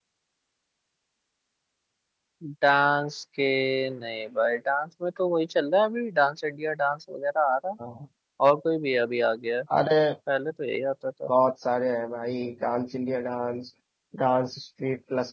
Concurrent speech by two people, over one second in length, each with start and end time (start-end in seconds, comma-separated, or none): none